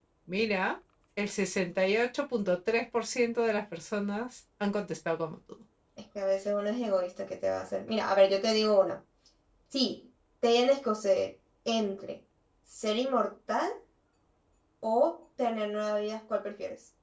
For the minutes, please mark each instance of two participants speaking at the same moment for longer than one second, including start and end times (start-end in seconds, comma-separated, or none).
none